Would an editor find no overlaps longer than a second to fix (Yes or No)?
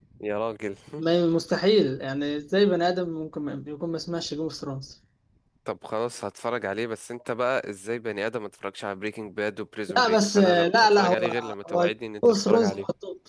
No